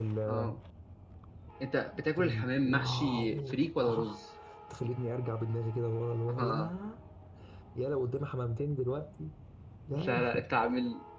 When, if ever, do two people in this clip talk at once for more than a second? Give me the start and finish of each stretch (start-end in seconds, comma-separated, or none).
2.2-4.2